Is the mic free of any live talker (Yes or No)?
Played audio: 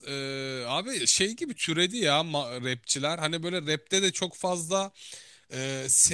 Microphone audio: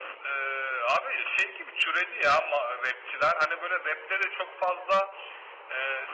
Yes